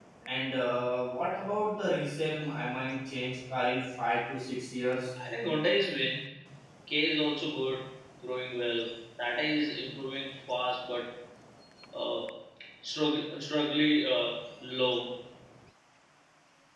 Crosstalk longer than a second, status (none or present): none